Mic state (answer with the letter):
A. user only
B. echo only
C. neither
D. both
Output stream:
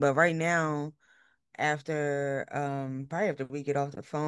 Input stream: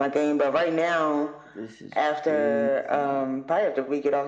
D